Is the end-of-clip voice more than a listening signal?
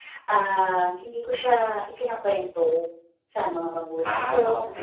No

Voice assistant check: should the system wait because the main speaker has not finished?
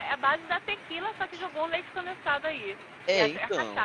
No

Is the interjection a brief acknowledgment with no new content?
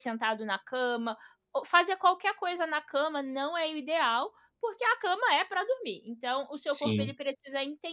Yes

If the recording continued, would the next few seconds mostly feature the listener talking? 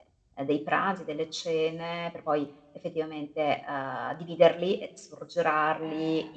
No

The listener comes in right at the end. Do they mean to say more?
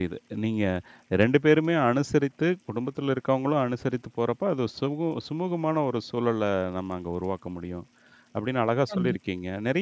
No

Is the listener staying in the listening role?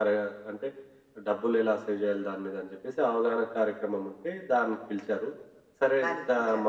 Yes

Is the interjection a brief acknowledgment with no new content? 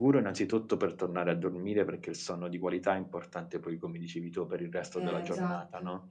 Yes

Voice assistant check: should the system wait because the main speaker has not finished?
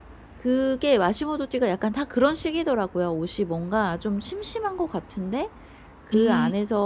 Yes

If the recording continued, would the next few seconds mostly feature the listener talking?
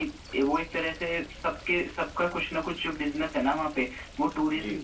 No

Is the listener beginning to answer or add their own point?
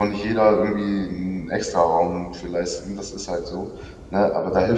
No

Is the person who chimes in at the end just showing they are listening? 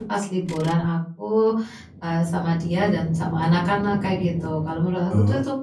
Yes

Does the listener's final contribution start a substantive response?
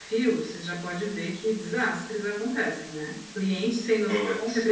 No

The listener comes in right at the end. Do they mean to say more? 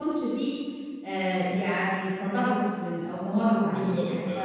Yes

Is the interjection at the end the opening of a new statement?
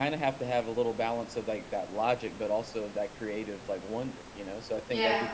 No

